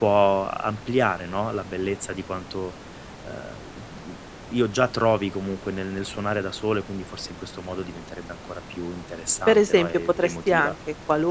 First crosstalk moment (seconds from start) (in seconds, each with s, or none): 9.5 s